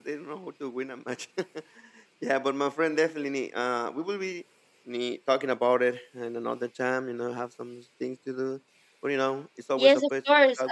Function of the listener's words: taking over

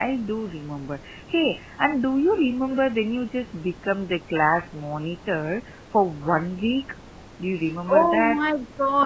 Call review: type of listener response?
taking over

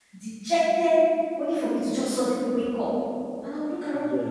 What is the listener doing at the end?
listening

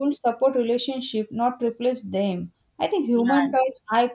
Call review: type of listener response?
listening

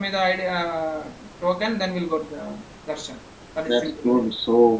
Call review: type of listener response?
taking over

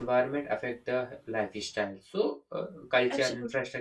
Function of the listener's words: listening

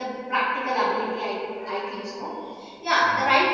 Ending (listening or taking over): listening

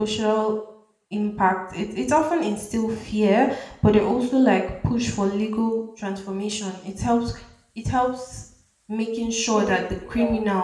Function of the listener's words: listening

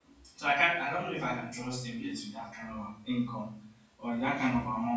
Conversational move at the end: listening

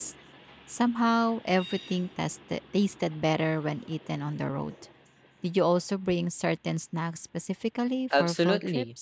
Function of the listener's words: taking over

